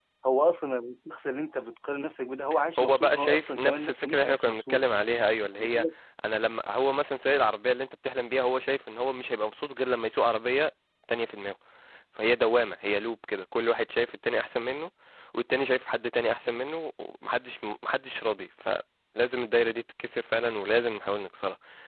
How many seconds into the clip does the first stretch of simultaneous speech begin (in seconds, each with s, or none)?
2.8 s